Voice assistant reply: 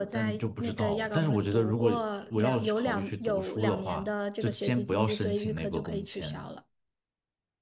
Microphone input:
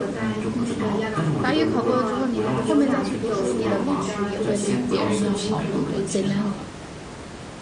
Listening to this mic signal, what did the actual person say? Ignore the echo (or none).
嗯，法语考过了之后，你后面再去读书，你的录取也会比别人要好很多，简单。